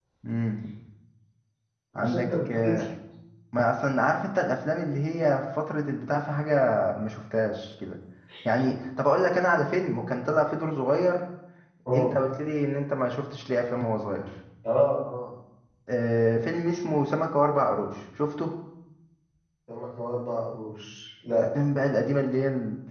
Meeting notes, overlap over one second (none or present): none